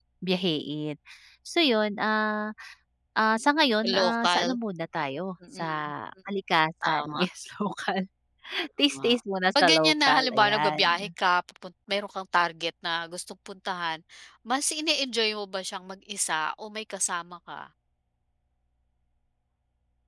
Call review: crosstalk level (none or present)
present